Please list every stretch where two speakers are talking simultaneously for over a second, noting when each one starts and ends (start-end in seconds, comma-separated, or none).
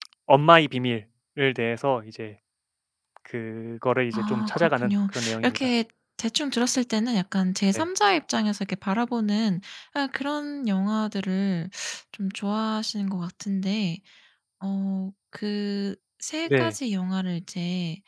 4.1-5.7